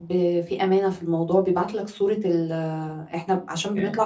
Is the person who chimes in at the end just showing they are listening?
Yes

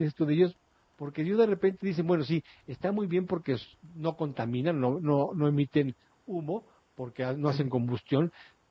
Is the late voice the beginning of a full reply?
No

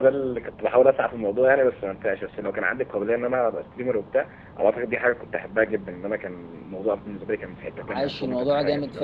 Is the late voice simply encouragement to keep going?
No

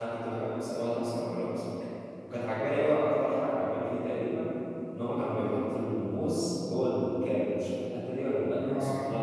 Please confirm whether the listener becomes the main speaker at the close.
Yes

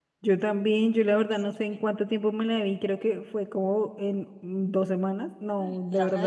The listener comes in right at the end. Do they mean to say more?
Yes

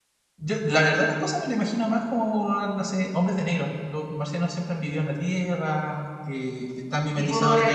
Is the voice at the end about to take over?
No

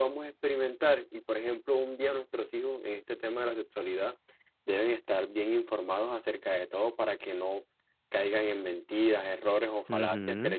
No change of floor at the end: Yes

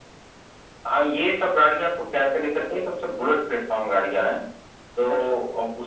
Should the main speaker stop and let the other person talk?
No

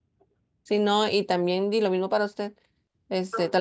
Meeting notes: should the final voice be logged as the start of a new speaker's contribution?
No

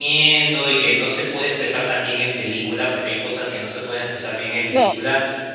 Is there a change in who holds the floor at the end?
No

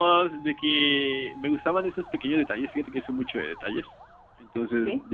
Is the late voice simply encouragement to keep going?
Yes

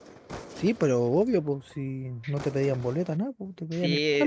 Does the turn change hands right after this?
Yes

